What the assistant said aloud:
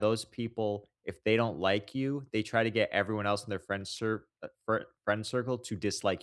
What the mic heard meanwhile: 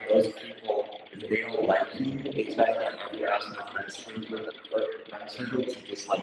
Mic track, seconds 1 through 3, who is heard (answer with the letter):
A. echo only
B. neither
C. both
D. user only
A